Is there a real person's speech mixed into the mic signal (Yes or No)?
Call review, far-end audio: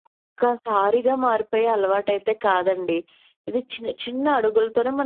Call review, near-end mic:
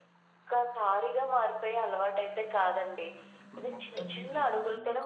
Yes